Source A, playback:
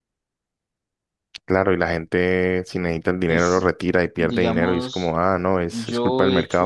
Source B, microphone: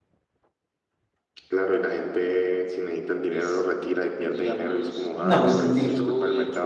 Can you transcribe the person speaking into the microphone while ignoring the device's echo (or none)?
No, pues, eh, di-